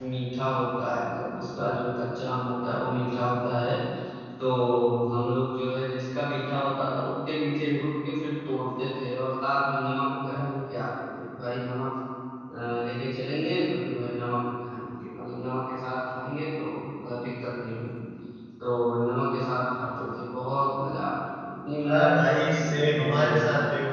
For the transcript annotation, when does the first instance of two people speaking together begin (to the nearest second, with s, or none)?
22 s